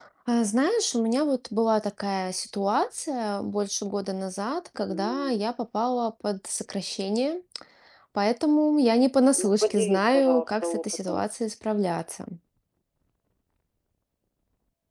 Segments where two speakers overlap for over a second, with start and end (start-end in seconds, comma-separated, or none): 9.4-11.2